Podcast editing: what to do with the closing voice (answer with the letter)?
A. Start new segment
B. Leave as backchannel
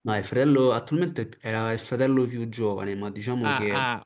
A